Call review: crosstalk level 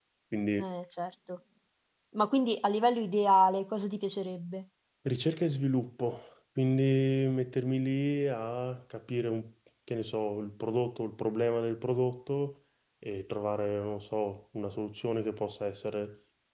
none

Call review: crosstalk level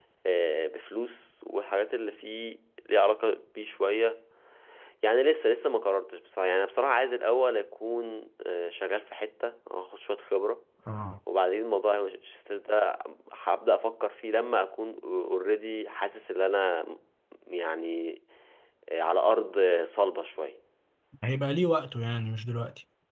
none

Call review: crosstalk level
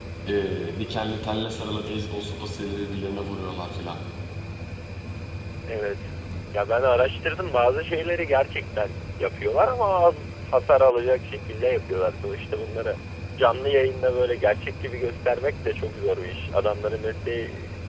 none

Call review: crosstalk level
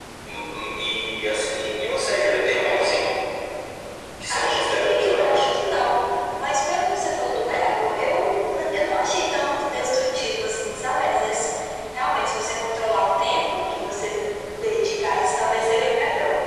present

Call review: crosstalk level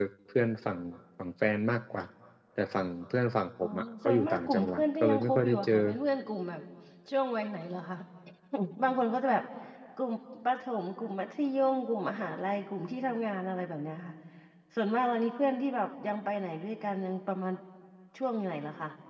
present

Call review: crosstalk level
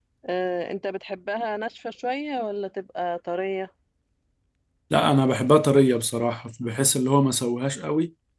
none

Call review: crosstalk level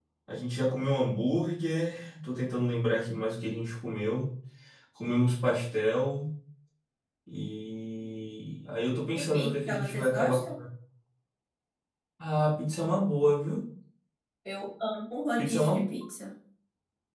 present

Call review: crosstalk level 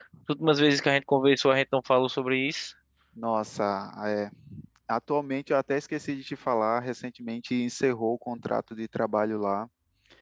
none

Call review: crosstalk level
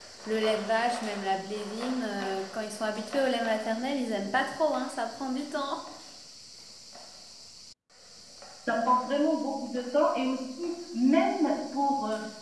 none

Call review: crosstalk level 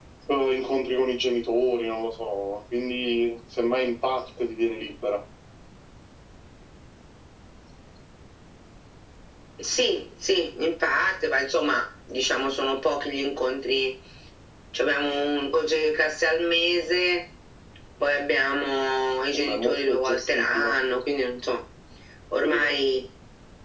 present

